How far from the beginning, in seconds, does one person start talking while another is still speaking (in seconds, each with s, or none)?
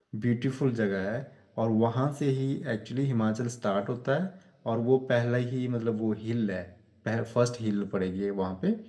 none